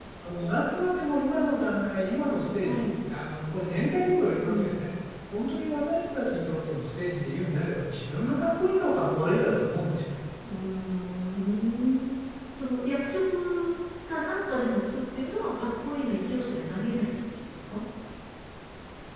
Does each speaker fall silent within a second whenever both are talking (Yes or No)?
Yes